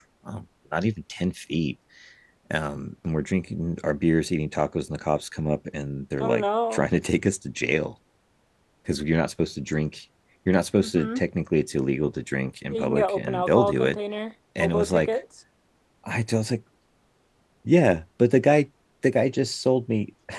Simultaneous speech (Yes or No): Yes